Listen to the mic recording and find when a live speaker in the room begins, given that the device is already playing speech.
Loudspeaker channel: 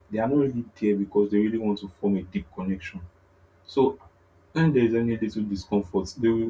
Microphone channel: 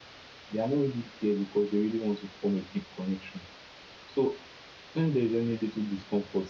none

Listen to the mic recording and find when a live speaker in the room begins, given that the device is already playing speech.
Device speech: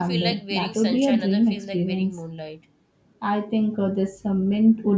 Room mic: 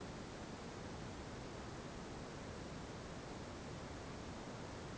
none

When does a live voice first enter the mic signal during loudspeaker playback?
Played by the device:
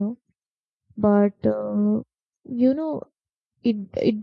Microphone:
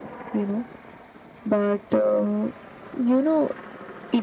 none

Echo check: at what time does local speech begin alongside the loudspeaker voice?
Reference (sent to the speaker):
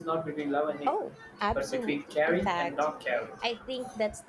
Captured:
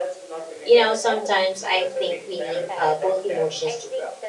0.6 s

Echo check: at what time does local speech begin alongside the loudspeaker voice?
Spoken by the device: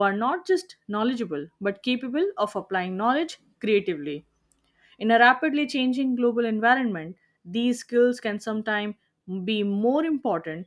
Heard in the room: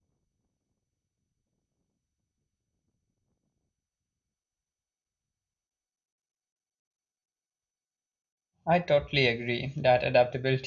8.7 s

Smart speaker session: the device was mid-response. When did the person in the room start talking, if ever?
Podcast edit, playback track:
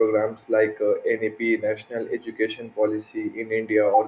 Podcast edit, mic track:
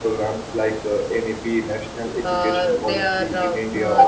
2.2 s

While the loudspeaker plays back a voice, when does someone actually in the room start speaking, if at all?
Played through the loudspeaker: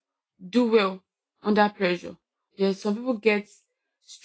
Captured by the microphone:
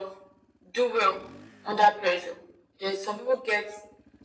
none

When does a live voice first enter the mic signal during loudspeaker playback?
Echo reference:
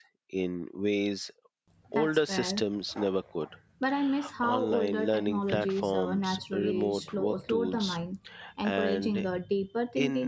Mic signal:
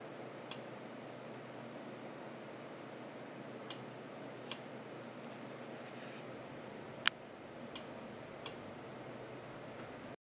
none

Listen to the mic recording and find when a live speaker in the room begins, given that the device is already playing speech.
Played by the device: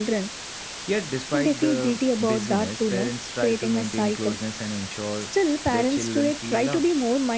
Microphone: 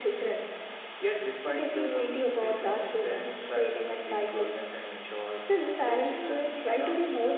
none

